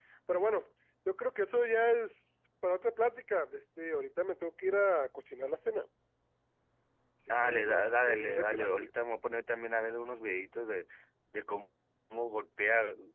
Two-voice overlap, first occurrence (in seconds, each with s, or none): 7.4 s